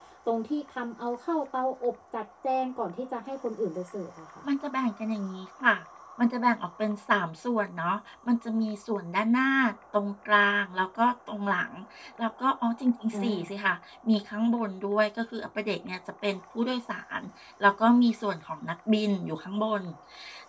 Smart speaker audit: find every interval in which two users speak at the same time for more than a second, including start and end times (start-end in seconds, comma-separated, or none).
none